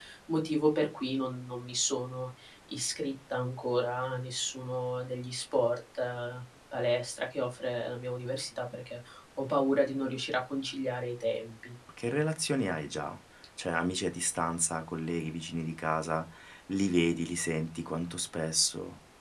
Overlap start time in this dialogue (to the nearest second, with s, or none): none